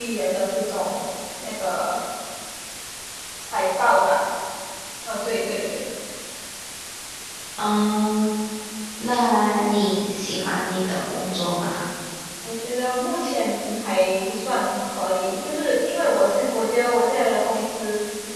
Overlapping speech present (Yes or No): No